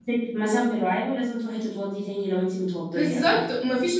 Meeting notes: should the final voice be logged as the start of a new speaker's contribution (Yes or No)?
Yes